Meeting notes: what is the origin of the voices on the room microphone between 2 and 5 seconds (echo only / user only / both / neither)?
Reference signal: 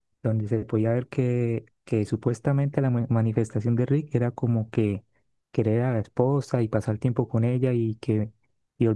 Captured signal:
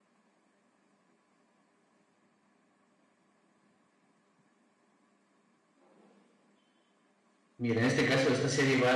neither